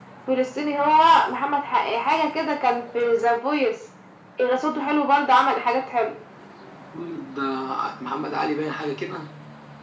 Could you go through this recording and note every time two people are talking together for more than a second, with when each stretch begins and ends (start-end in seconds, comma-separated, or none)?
none